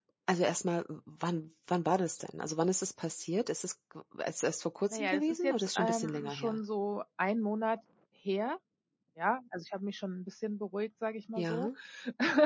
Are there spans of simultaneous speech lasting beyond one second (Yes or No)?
Yes